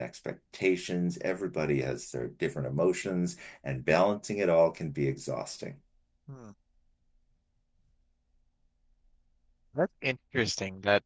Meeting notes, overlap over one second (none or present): none